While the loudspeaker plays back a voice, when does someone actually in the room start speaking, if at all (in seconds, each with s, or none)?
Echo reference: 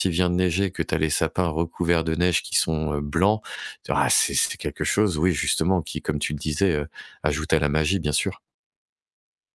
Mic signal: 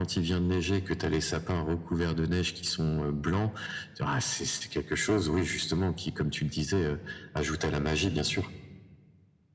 none